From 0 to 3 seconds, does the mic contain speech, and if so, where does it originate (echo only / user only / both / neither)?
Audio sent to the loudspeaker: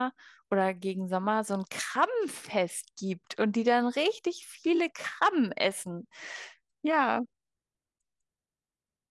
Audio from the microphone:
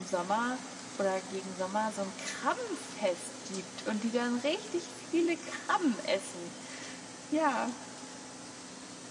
echo only